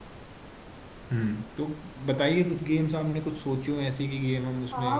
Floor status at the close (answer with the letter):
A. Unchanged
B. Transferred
B